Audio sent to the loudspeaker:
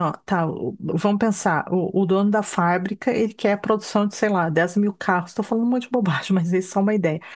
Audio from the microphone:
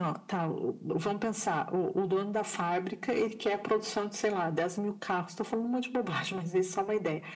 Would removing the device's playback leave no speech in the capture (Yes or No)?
Yes